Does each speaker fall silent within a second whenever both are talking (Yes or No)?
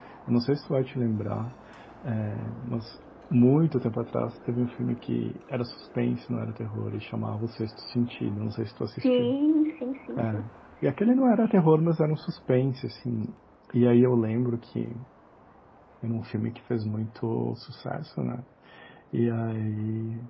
Yes